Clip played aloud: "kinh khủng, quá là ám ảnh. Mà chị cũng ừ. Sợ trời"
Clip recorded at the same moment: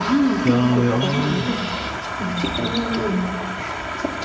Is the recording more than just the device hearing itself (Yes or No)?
Yes